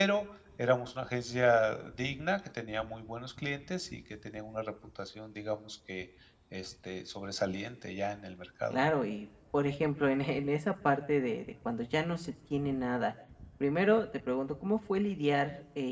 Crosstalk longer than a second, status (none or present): none